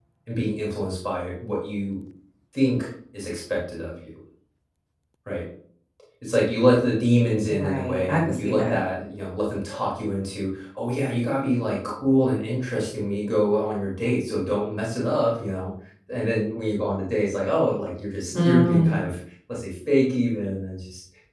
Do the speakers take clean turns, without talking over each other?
No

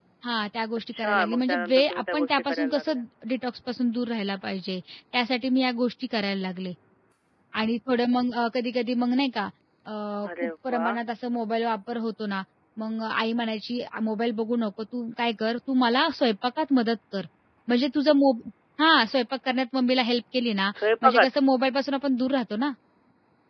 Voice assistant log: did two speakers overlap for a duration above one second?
Yes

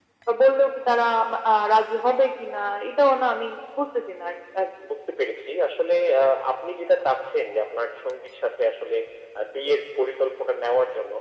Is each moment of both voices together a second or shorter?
Yes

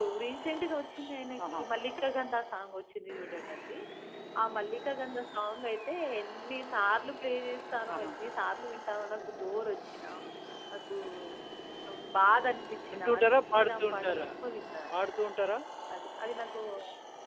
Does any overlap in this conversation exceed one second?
Yes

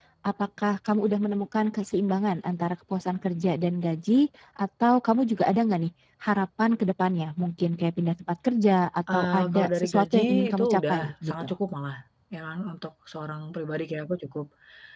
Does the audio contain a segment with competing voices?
Yes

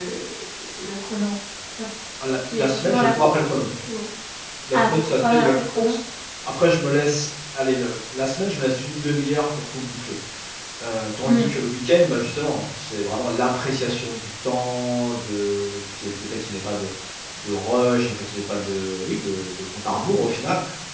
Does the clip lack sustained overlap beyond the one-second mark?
No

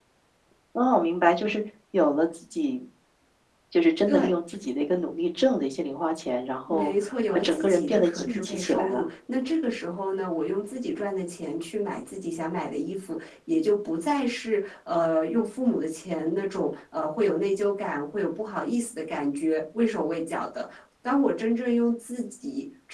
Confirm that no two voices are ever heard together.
No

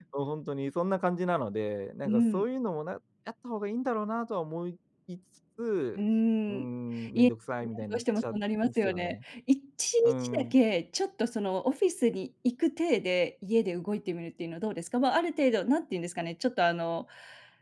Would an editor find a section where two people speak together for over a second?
Yes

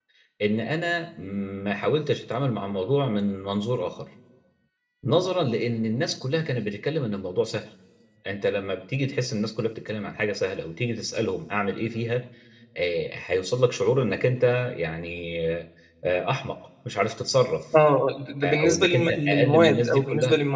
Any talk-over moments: Yes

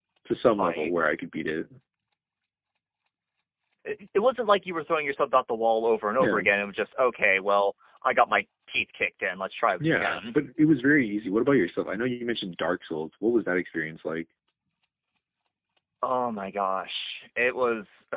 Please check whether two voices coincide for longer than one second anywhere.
No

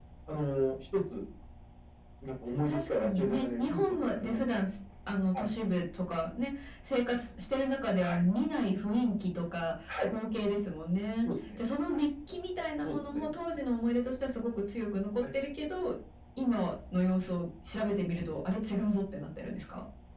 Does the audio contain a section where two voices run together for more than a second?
Yes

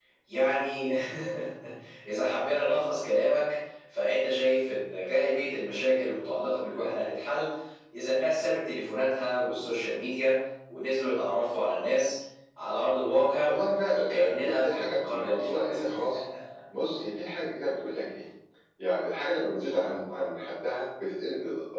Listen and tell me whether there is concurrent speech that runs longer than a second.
Yes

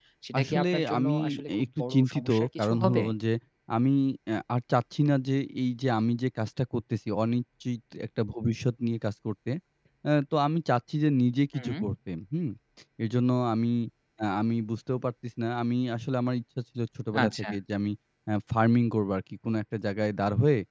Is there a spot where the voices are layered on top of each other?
Yes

